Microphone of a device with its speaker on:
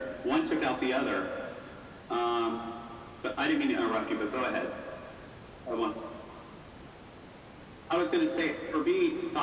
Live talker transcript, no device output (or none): none